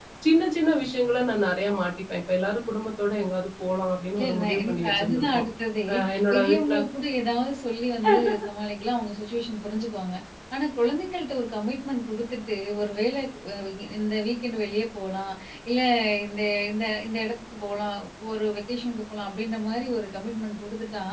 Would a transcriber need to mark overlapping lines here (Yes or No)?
Yes